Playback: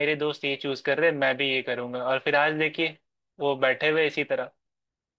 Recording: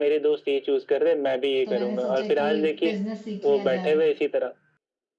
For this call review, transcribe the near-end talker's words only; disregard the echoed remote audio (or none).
तो मैंने सोचा कि बिजनेस सीख लिया जाए